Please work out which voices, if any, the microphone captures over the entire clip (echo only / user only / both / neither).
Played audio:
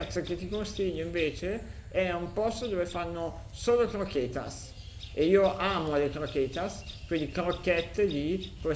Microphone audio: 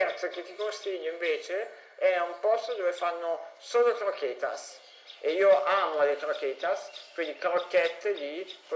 echo only